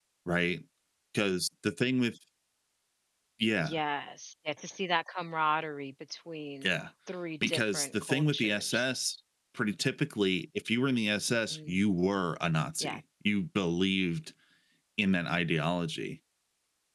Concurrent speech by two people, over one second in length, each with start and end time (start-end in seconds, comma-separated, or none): 7.5-8.9